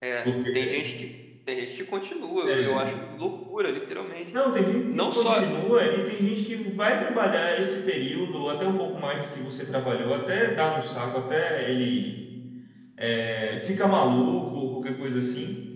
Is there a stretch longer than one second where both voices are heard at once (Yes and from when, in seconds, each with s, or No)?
No